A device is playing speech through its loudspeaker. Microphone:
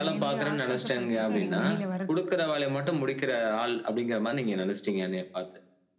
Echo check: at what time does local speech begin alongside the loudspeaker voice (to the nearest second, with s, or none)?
1 s